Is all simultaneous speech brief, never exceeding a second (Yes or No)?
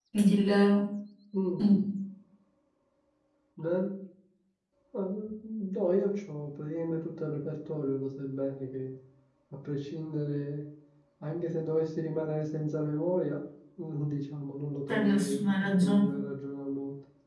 No